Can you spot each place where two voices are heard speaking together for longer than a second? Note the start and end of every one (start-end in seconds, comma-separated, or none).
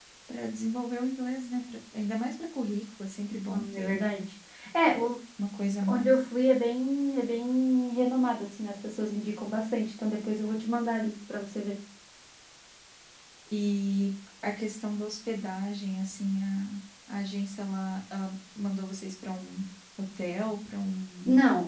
none